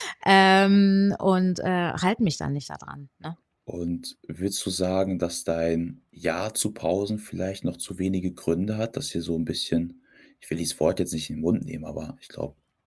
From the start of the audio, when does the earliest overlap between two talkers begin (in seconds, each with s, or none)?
none